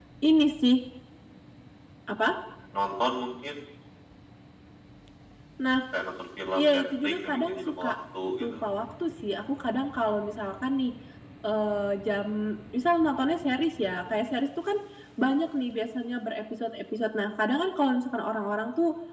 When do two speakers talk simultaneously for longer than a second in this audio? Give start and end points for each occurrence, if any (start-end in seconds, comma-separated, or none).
6.5-7.9